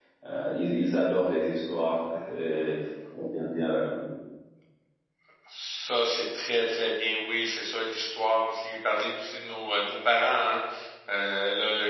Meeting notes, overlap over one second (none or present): none